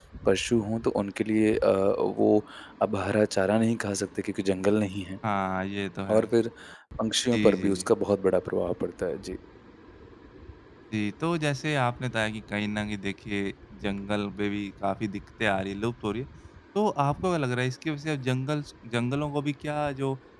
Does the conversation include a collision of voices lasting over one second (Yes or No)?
No